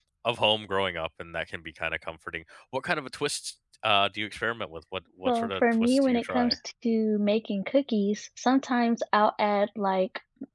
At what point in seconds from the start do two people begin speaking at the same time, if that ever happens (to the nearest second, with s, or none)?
5 s